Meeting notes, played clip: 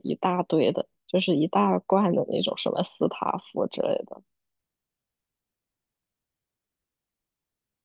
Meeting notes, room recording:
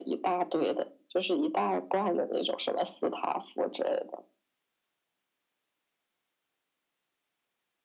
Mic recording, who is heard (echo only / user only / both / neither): echo only